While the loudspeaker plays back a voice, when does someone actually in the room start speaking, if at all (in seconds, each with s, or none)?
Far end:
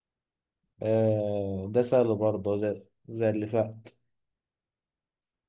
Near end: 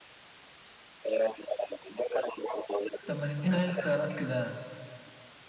3.0 s